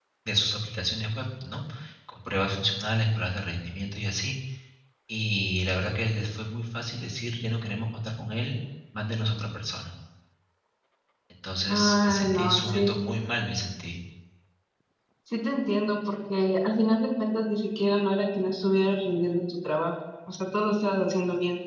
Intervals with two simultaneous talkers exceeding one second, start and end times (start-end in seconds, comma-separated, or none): 11.7-12.9